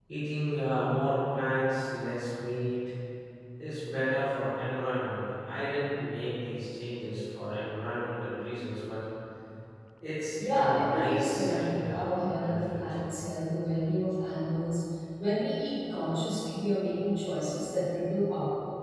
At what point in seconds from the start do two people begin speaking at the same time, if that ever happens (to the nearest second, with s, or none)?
11 s